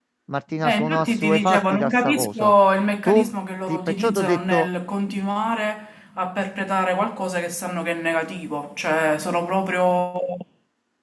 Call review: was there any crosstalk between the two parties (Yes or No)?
Yes